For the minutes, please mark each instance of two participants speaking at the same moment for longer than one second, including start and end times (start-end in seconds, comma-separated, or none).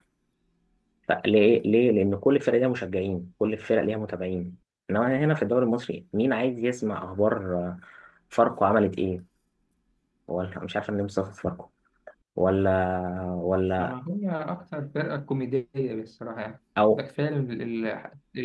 none